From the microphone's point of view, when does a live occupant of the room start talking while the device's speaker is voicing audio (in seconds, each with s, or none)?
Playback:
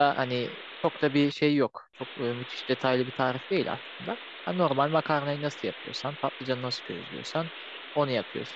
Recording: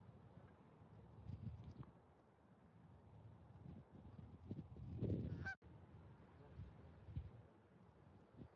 none